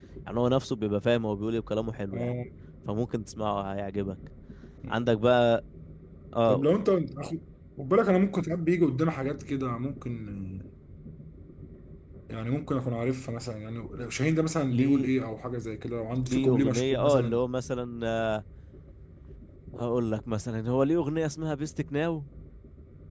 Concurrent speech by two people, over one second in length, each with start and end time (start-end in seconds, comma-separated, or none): 16.2-17.4